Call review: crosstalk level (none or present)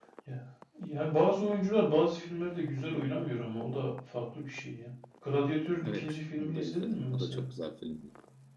present